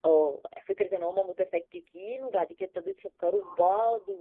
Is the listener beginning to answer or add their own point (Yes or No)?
No